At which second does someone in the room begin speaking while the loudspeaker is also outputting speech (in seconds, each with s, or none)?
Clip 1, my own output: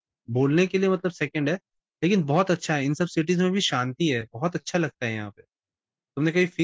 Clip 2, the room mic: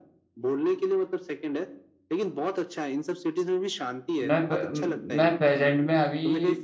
4.2 s